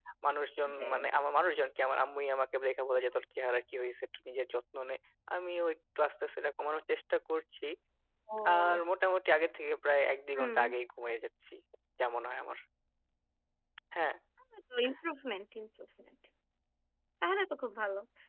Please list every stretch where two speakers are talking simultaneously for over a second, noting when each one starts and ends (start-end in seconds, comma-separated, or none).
none